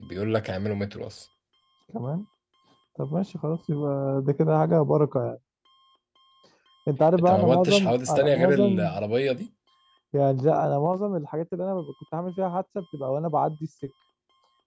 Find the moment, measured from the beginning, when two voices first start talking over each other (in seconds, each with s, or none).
7.2 s